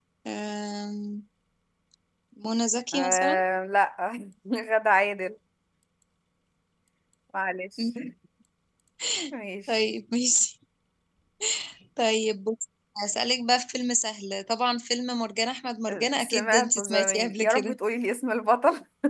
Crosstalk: present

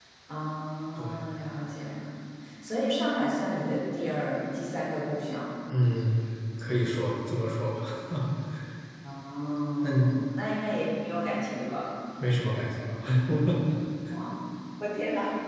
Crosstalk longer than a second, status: none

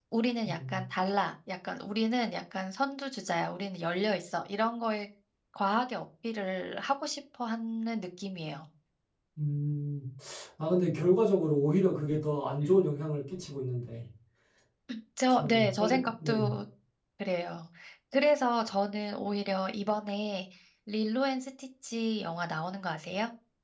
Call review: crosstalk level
present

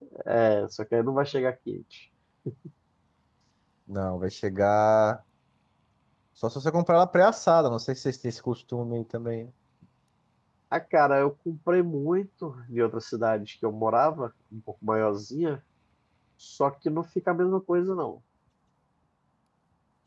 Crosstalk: none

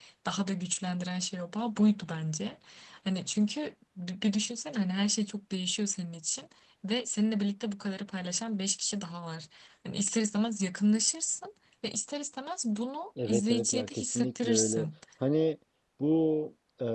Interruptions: present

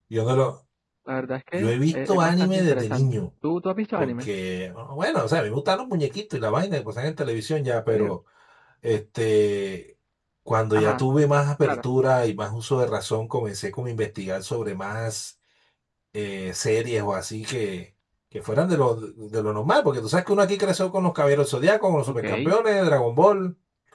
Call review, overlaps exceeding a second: present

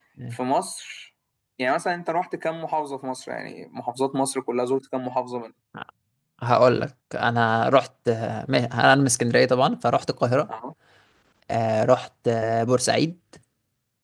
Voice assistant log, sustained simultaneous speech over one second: none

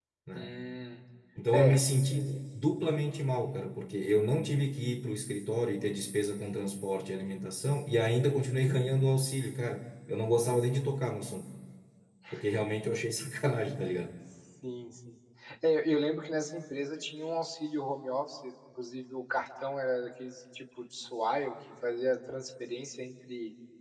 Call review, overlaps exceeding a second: none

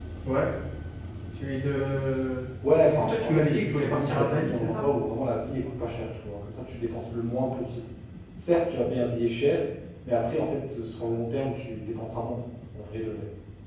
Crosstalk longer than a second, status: present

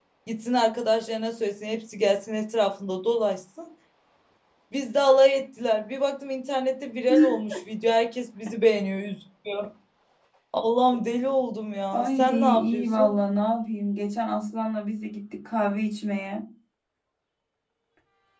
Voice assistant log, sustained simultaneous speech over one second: present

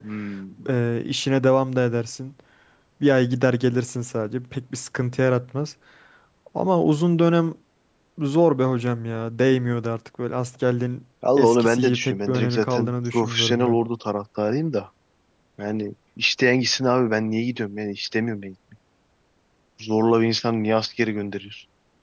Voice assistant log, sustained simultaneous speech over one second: present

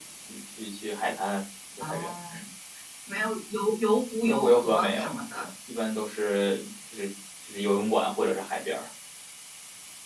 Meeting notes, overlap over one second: present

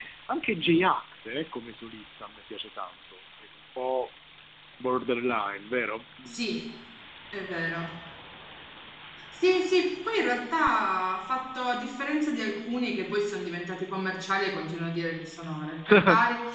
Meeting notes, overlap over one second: none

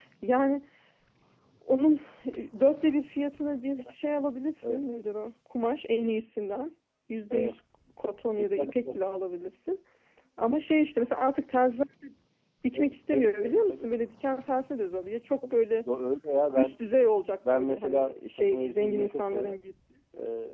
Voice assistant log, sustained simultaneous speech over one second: present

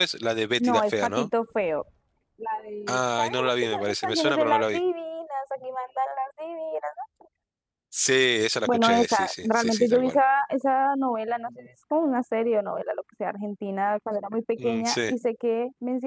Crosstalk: present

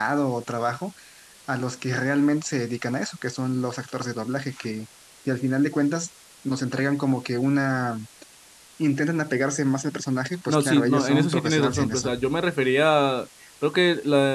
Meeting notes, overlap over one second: present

